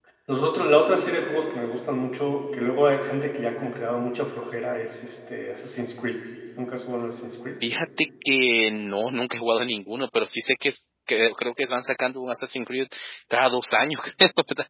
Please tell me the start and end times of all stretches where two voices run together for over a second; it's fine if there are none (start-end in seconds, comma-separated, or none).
none